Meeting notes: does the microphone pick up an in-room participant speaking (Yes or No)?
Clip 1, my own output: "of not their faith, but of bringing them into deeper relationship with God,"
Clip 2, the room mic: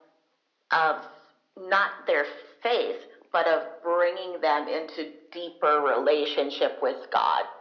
No